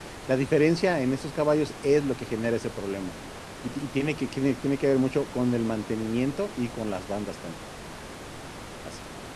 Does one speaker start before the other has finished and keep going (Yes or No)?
No